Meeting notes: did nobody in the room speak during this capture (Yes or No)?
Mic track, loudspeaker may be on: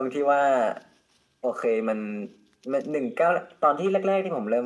Yes